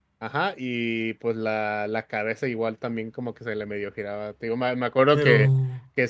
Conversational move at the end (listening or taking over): listening